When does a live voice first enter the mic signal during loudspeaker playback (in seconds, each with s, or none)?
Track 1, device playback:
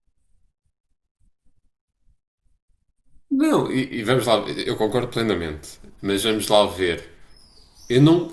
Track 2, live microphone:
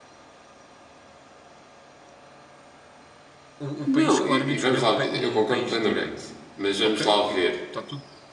3.6 s